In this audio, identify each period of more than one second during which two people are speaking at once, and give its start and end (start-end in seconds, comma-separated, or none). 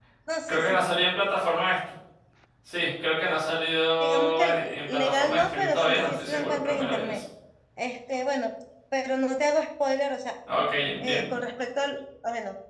4.0-7.2